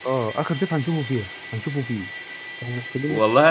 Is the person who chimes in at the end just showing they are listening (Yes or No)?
No